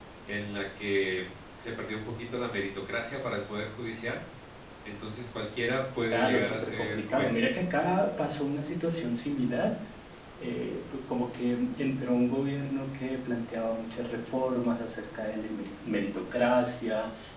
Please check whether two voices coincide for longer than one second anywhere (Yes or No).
Yes